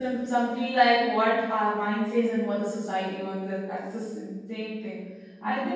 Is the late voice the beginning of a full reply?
No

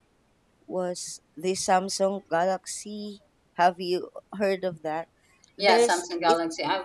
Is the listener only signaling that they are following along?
No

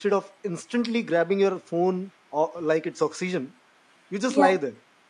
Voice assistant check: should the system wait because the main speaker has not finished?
Yes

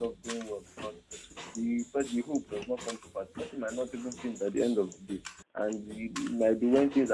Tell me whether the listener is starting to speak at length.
No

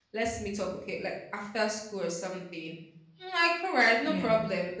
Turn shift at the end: No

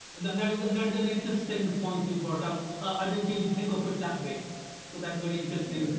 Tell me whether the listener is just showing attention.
Yes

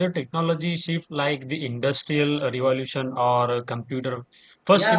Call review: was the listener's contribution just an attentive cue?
No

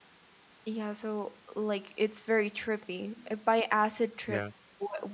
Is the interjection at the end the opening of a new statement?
No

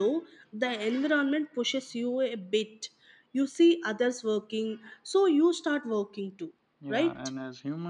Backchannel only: No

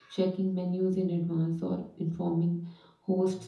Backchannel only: Yes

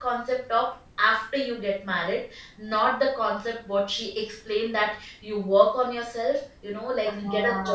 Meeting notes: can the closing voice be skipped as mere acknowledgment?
Yes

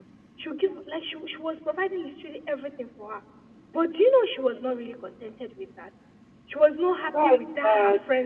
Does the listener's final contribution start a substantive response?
No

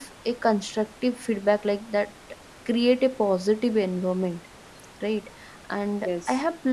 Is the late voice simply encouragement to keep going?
Yes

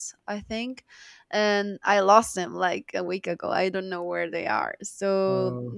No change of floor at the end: Yes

